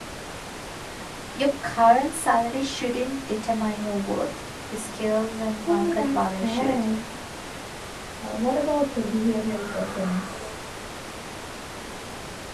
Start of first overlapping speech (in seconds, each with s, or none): 5.7 s